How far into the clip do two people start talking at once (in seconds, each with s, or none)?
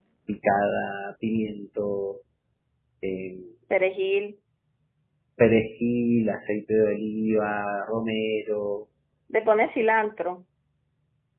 none